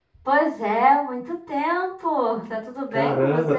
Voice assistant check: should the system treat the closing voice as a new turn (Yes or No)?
Yes